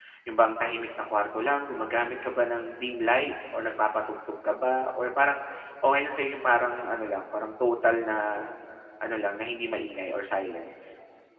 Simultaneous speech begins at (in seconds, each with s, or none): none